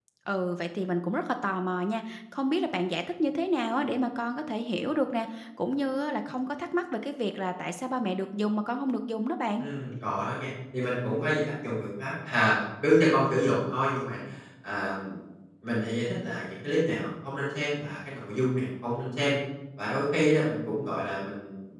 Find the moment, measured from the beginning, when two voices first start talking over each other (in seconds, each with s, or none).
none